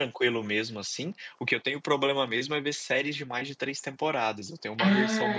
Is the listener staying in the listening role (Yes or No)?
No